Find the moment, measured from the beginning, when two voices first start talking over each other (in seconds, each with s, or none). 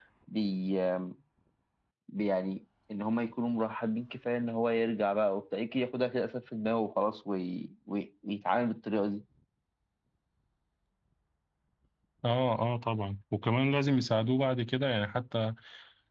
none